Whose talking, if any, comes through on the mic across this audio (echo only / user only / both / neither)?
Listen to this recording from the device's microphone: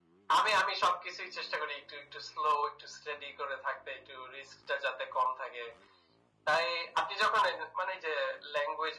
echo only